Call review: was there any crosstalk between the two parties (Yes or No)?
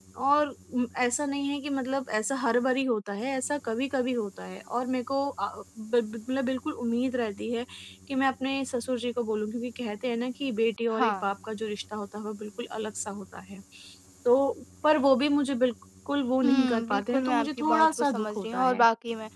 Yes